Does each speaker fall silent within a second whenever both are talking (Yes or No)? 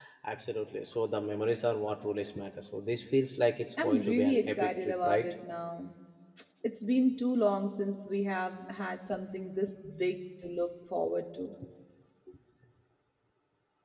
No